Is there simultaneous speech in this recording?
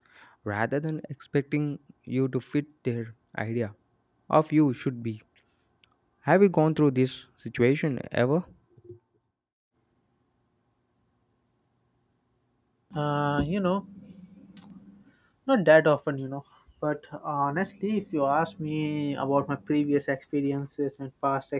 No

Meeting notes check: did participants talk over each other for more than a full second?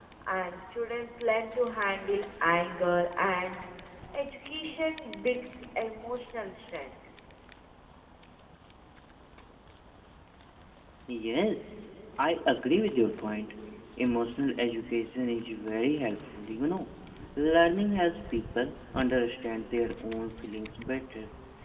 No

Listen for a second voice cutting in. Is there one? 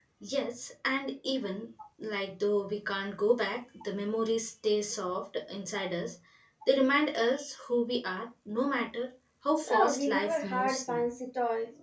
Yes, from 9.6 s

